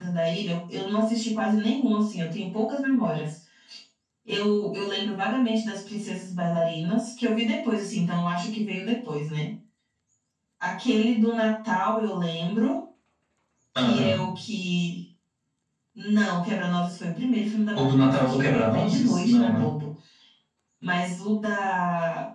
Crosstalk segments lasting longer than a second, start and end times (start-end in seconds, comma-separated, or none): 17.8-19.7